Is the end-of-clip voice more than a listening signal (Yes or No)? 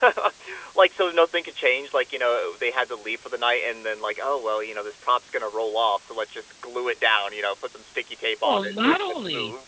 Yes